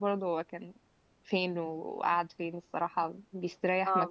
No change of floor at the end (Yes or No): No